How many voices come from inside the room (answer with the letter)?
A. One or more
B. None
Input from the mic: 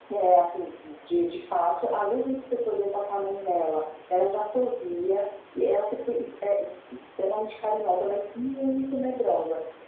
B